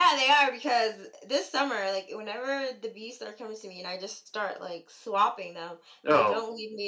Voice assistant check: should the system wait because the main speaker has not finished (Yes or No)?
Yes